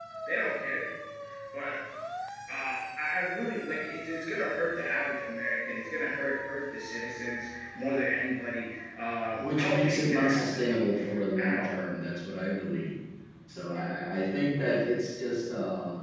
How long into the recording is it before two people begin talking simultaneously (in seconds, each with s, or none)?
9.4 s